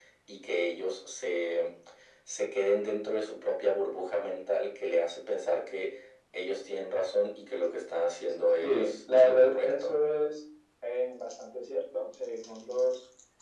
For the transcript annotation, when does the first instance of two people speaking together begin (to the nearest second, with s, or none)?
9 s